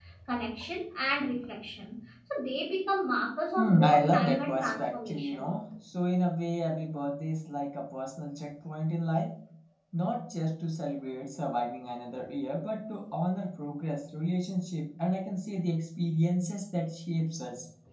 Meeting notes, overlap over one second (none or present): present